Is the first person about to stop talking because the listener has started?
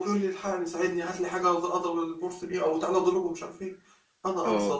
No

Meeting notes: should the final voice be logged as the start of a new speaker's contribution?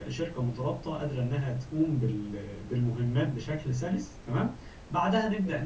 No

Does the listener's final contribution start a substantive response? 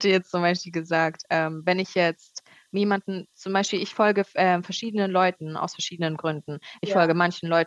No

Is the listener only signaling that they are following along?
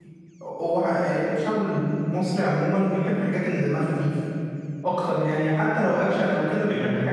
Yes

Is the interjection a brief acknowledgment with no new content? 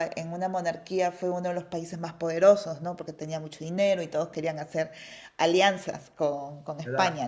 No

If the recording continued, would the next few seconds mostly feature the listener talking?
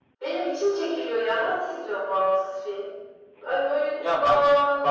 Yes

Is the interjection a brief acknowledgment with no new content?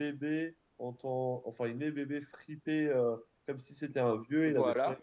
Yes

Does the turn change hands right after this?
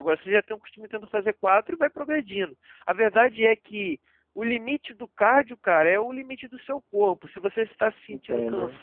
No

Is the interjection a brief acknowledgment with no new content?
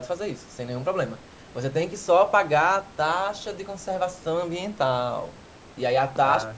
Yes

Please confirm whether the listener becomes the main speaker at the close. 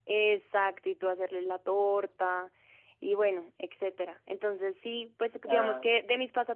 No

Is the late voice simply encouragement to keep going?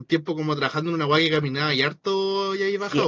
No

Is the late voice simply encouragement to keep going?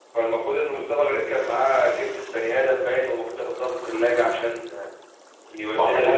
Yes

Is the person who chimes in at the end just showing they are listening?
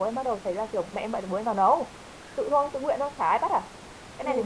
No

